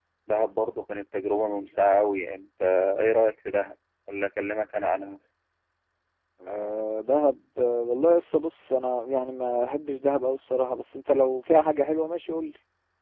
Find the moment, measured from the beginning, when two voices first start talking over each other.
none

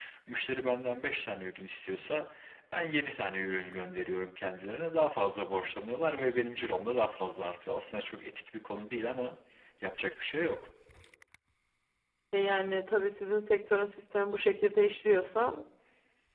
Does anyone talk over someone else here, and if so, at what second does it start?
none

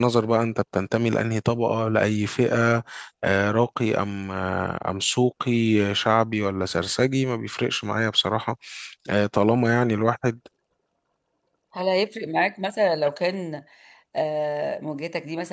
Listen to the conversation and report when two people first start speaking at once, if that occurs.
none

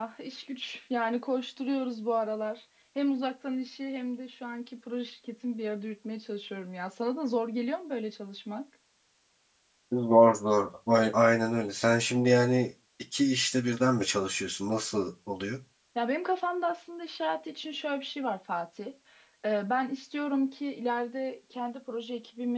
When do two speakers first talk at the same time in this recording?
none

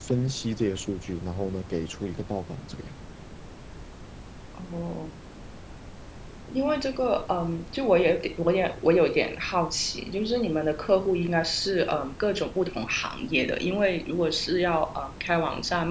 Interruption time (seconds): none

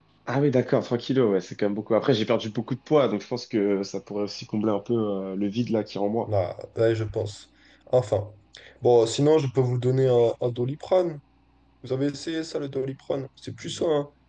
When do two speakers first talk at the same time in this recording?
none

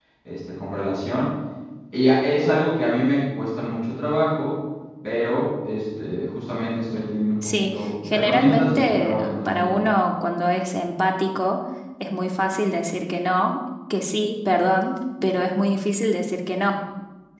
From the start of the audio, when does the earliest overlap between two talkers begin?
7.4 s

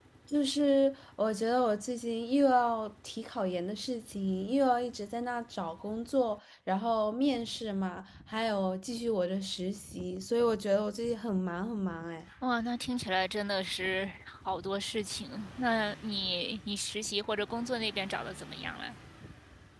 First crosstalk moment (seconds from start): none

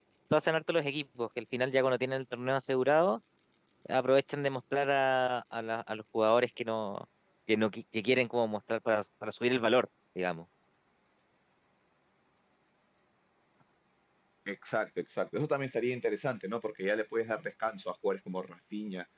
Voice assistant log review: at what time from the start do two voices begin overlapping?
none

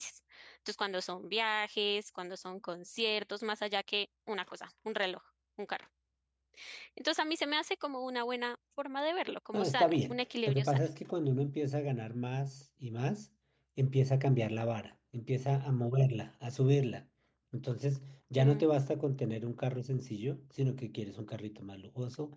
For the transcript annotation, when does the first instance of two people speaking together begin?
9.5 s

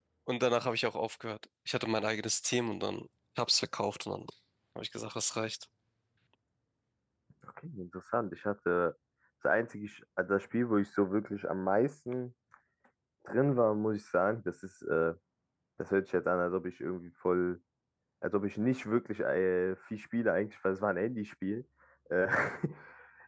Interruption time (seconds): none

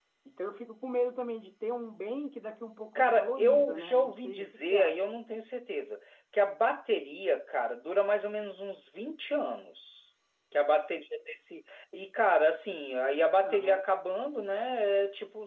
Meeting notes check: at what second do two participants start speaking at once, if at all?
3.0 s

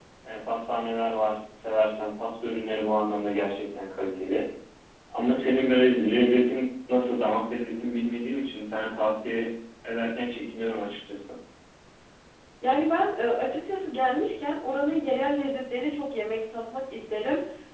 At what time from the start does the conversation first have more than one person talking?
none

